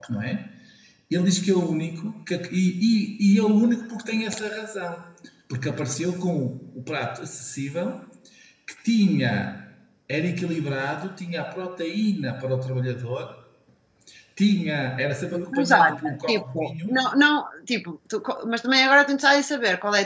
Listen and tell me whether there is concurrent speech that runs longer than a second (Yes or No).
Yes